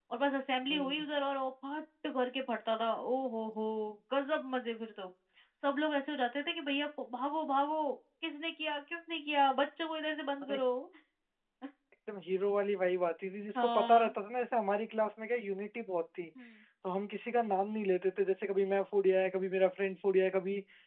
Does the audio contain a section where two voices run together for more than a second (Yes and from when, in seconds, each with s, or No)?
No